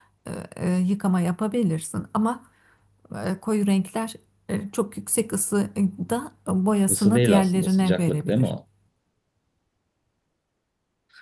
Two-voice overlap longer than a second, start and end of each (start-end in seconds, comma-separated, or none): 6.9-8.5